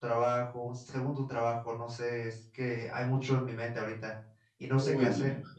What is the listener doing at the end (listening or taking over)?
taking over